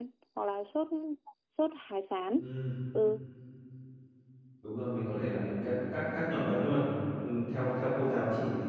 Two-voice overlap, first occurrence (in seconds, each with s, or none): none